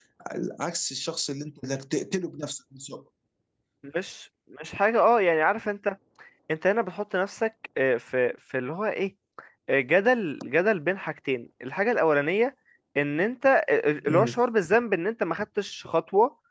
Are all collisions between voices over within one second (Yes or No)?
Yes